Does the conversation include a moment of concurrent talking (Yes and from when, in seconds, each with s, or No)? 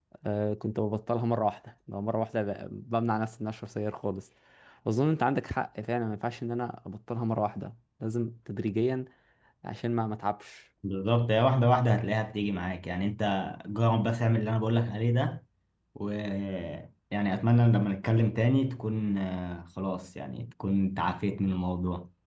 No